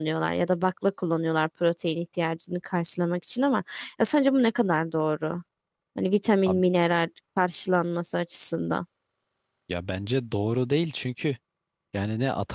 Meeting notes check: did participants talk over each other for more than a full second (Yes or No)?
No